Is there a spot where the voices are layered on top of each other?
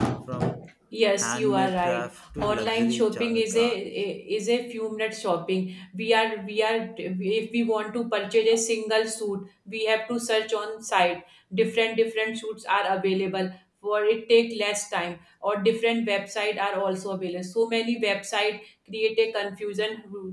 Yes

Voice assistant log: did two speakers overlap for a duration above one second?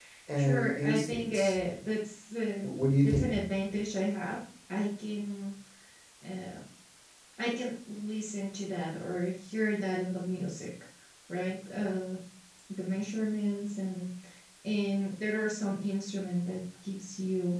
Yes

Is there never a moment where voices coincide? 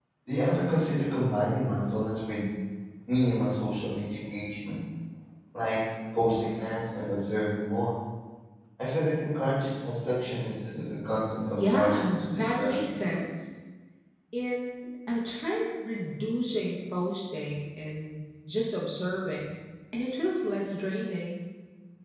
No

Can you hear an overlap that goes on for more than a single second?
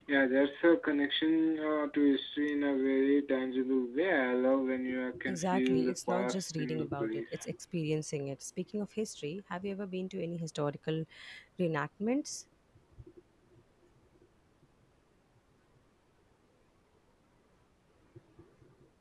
Yes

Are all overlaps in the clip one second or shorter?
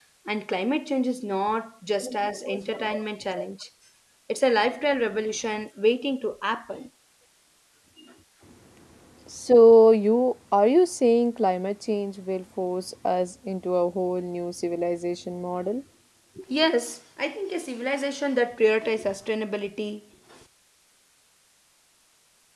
Yes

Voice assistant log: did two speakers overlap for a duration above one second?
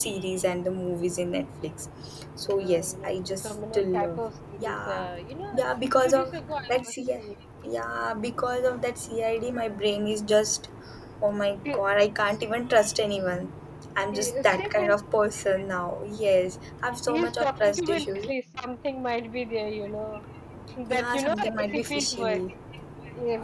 Yes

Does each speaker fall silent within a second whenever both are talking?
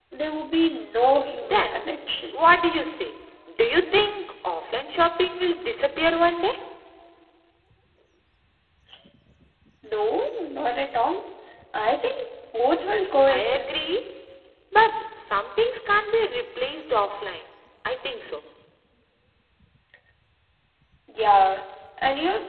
Yes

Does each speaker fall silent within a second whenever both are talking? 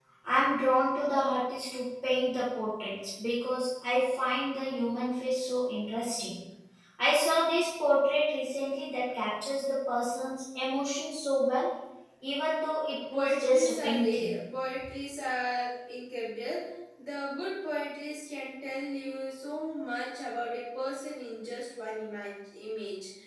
No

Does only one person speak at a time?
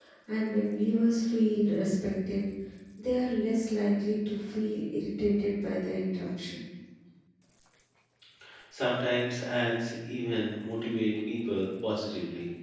Yes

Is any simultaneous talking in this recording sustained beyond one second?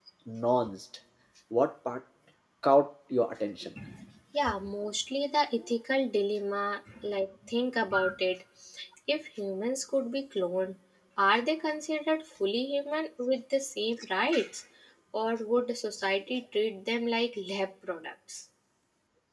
No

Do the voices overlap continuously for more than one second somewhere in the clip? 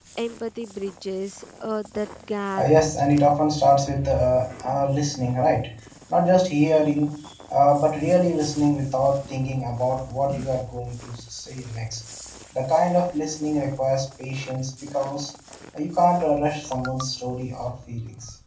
No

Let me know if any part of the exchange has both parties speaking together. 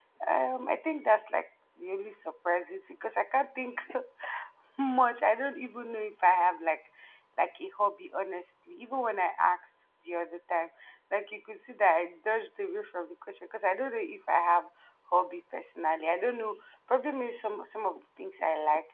No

